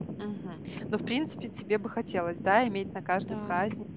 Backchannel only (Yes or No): Yes